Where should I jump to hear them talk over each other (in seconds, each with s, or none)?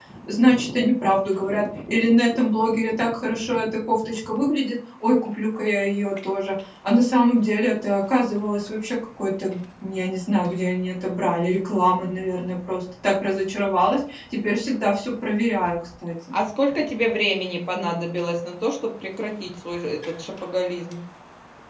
none